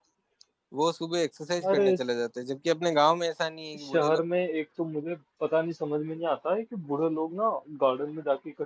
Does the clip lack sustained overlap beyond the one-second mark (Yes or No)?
Yes